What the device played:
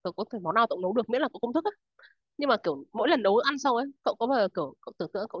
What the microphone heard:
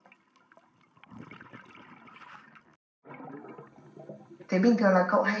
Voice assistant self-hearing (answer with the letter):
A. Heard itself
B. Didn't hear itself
B